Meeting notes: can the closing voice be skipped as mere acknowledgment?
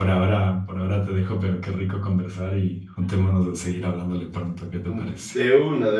No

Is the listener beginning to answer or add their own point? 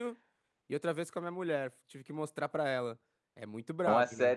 Yes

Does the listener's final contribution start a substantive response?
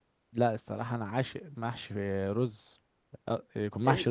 No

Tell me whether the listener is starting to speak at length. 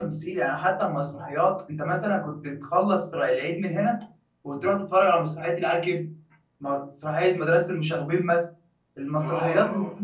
No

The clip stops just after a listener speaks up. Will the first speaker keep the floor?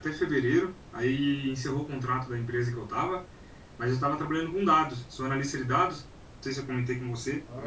Yes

